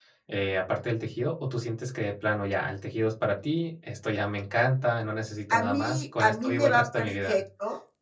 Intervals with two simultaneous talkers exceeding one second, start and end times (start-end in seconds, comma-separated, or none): 5.5-7.4